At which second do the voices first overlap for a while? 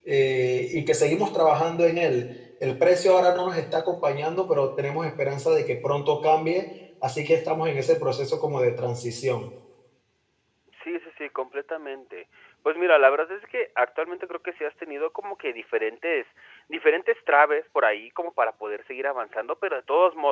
none

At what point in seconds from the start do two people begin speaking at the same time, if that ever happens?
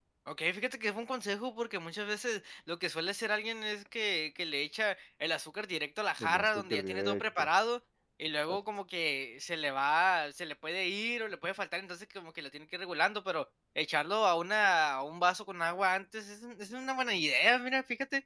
6.2 s

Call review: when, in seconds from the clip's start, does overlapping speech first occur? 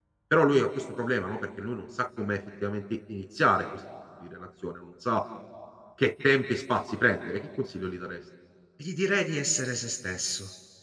none

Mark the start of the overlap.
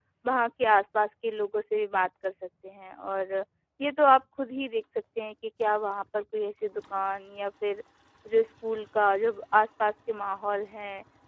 none

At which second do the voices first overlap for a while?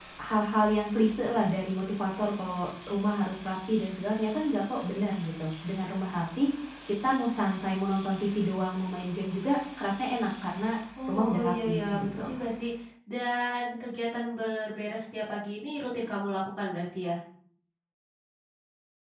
11.0 s

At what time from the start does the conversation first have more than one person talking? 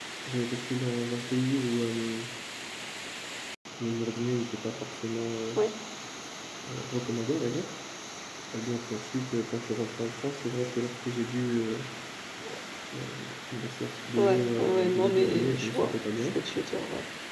14.2 s

